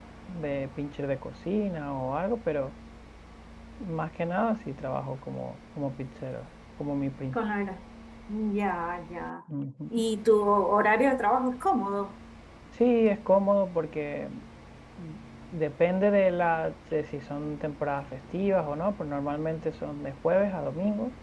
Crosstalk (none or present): none